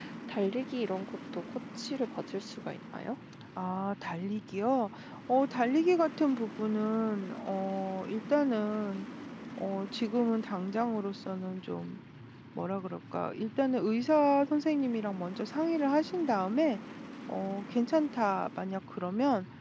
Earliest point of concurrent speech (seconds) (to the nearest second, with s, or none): none